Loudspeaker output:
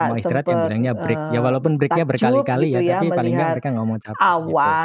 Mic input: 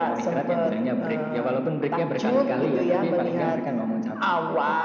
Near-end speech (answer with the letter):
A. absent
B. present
A